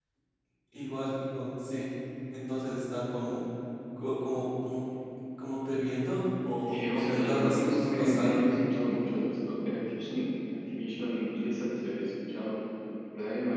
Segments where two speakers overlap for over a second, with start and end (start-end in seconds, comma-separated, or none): 6.7-8.4